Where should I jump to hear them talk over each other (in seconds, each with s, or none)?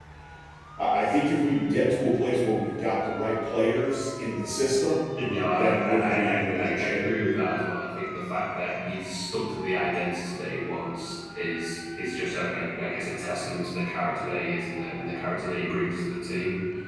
5.6 s